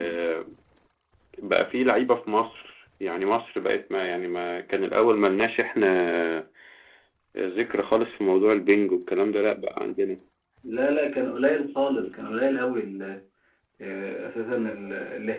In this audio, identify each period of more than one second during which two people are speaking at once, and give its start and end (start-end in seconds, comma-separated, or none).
none